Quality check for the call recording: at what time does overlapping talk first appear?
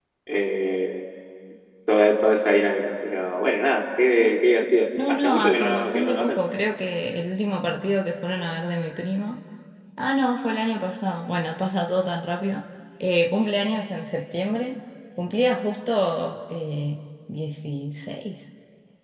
5 s

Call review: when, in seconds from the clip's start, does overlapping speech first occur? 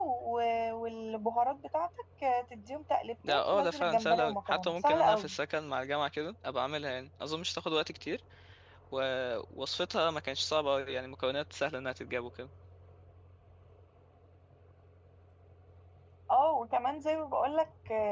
3 s

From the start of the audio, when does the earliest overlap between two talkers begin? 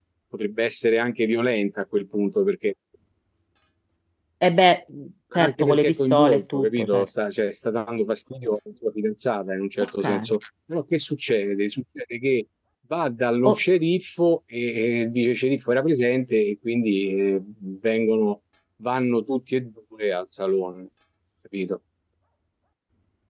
5 s

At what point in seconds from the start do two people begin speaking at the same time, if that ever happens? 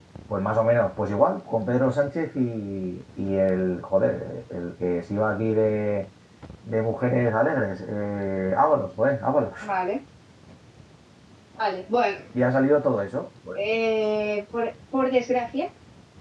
none

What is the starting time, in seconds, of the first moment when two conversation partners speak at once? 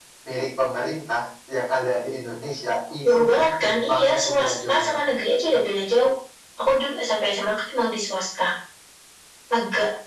3 s

